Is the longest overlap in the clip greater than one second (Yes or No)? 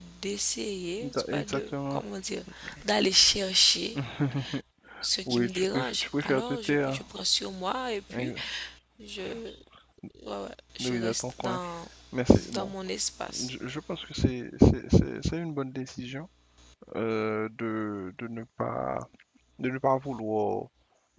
Yes